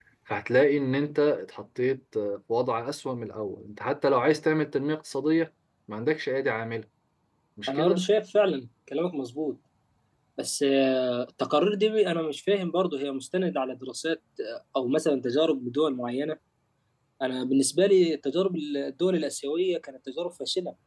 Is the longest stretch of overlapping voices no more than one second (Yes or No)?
Yes